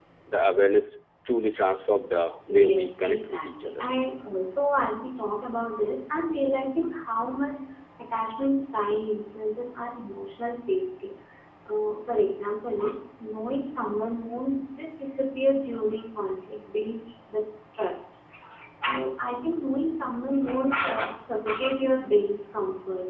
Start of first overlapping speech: 2.5 s

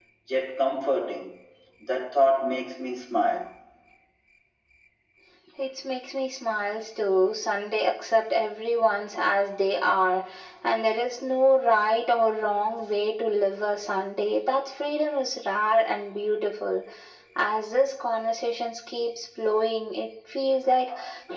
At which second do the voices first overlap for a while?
none

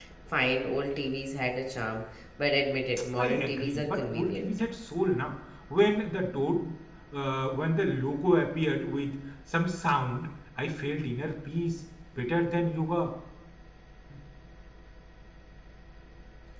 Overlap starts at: 3.2 s

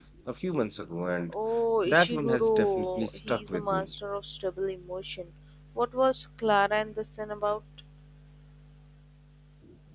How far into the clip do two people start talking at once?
1.9 s

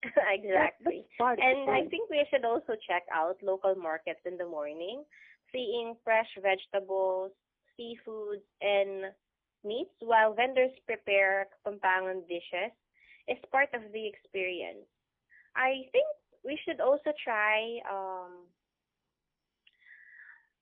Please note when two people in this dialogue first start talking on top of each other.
0.5 s

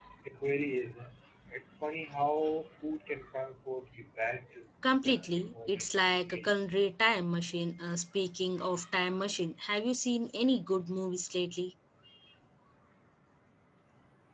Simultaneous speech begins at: 4.8 s

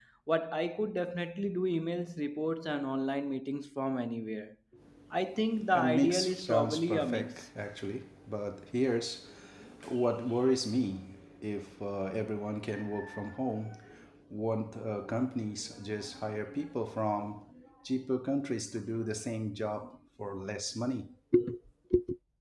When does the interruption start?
5.7 s

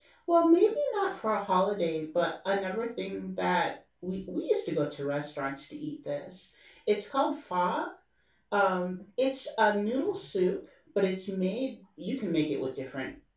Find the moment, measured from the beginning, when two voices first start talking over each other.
none

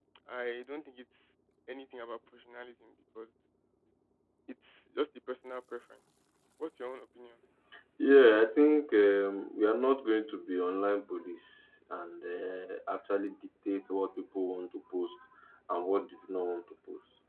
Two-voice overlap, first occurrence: none

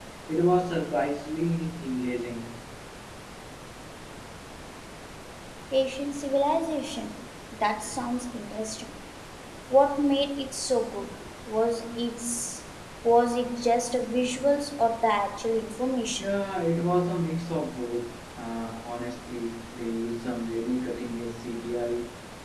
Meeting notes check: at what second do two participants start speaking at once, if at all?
none

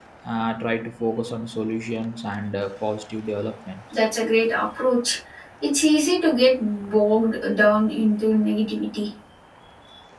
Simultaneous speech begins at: none

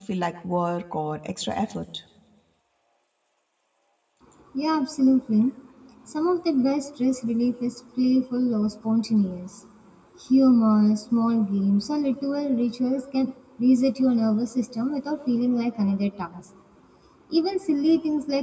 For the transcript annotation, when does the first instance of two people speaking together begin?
none

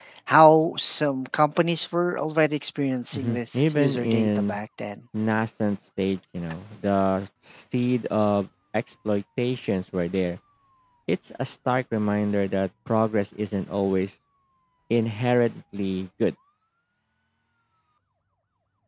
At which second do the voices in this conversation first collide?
3.1 s

